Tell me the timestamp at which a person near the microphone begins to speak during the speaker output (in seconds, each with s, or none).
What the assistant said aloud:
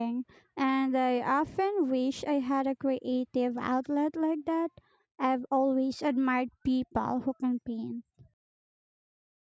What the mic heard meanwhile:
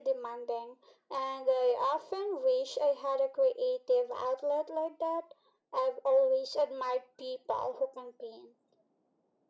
none